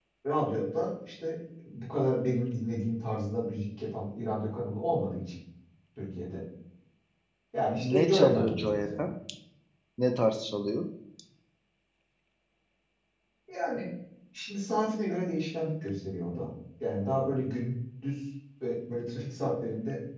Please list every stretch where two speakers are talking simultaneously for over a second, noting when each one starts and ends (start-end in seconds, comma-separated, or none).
7.8-9.1